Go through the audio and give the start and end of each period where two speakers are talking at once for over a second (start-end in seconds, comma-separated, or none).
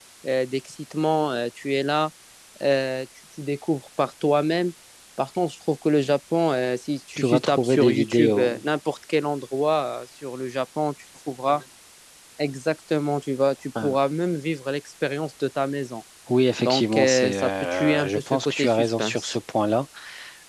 7.2-8.6, 16.6-19.4